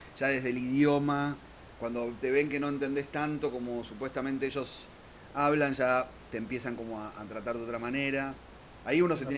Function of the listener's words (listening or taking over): listening